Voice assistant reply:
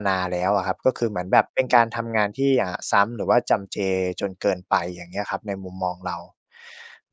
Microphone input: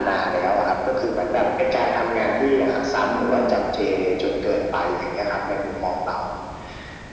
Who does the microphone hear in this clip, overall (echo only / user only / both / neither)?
both